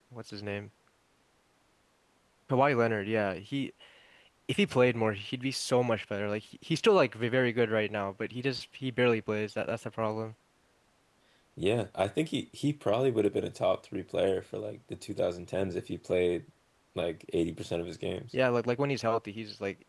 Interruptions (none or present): none